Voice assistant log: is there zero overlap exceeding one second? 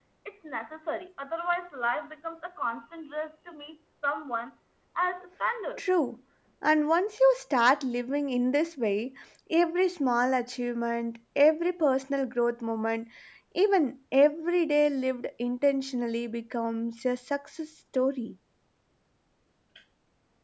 Yes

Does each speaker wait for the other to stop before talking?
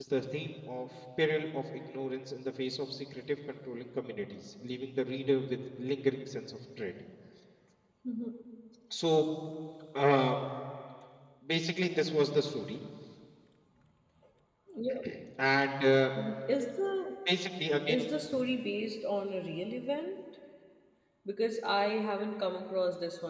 Yes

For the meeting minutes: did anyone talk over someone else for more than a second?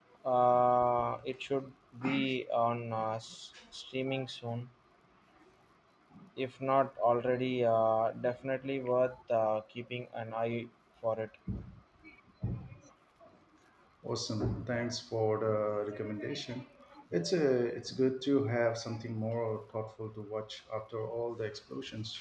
No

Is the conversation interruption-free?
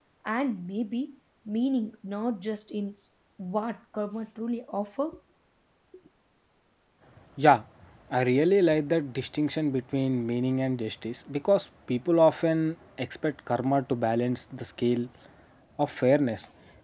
Yes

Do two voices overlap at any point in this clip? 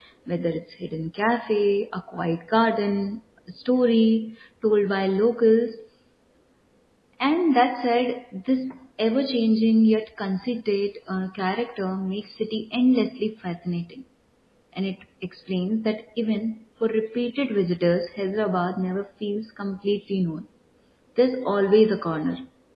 No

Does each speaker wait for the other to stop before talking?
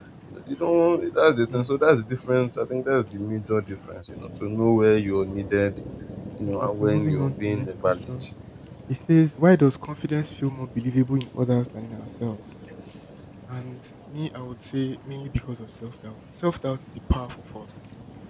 No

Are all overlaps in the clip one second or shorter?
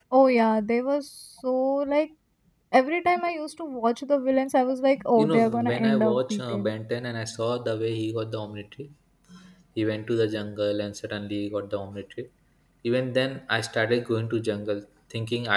No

